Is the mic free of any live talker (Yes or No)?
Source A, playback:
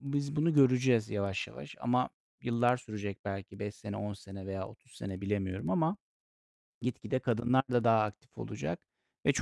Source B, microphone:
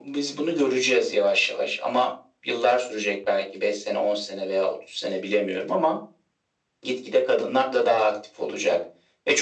Yes